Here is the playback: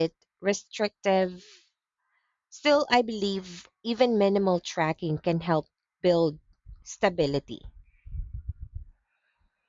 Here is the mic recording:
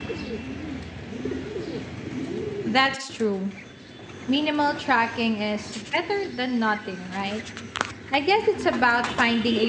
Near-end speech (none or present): present